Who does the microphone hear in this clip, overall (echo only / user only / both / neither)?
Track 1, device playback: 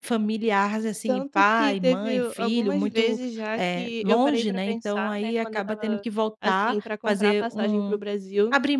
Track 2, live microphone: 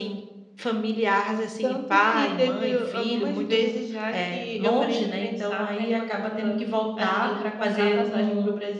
echo only